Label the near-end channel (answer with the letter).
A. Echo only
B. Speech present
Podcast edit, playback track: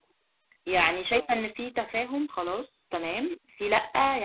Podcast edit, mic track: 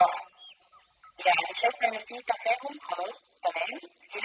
A